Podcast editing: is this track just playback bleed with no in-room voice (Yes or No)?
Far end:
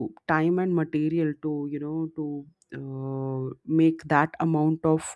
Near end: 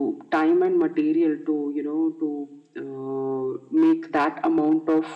Yes